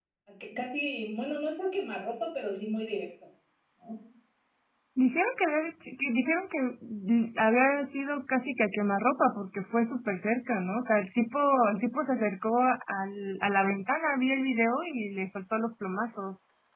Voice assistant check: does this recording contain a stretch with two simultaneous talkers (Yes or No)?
No